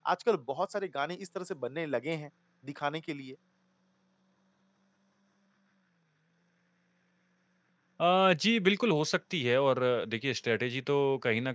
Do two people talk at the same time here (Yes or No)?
No